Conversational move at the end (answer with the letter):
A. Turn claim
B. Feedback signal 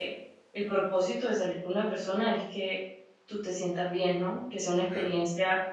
B